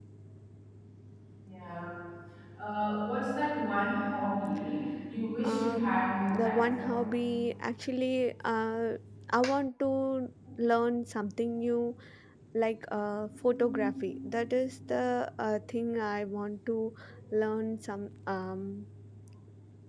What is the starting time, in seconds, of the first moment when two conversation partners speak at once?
5.4 s

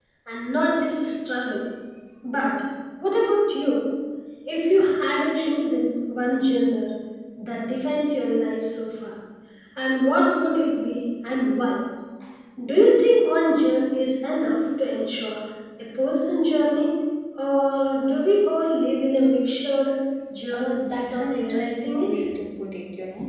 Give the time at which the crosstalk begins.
20.5 s

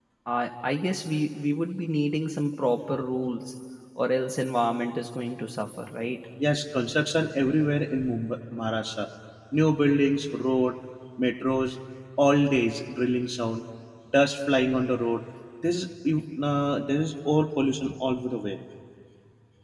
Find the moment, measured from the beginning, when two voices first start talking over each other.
none

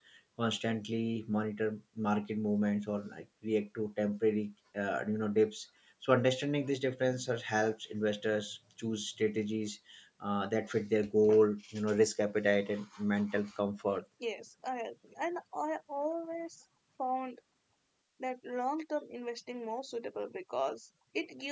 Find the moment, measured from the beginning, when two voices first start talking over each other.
none

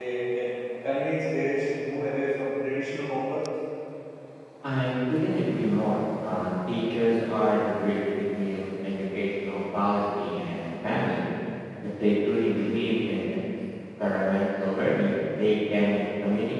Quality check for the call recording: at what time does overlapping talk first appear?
none

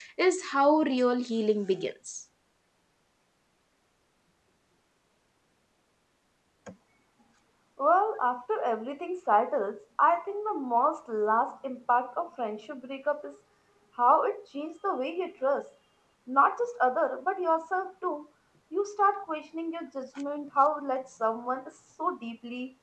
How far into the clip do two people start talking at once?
none

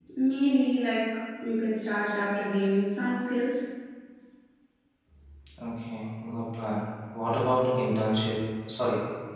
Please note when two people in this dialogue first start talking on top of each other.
none

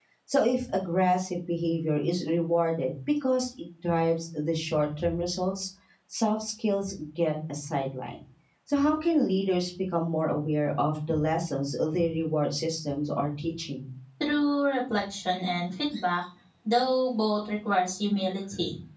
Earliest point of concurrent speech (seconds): none

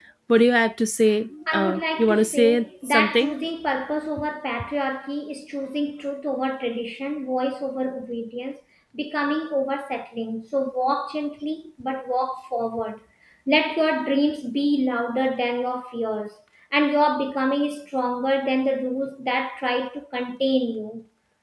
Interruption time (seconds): 1.5 s

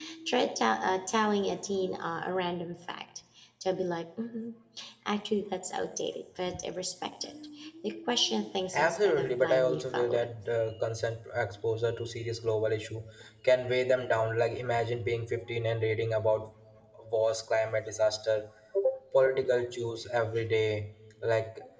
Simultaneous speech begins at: 8.7 s

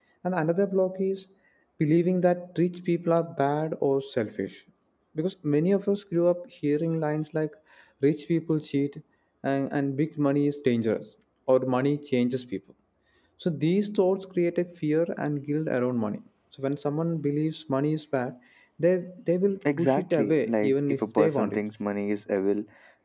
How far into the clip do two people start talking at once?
19.6 s

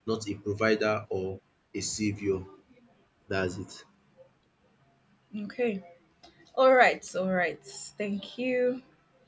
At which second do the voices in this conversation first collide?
none

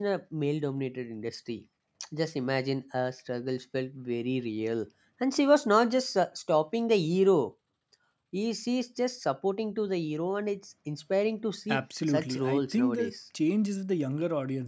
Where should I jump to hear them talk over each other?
11.7 s

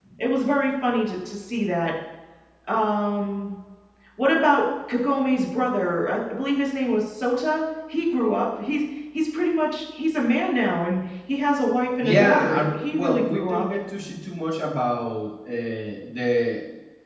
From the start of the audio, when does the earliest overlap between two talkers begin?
12.0 s

